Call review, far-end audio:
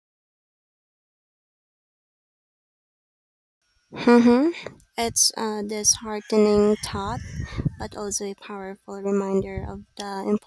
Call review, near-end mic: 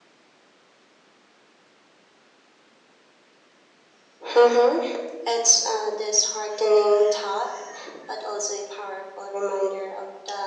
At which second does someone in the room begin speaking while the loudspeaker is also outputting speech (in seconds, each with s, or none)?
none